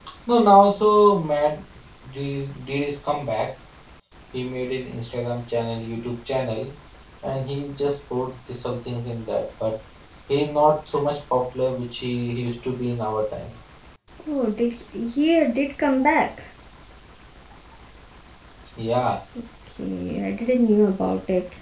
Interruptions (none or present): none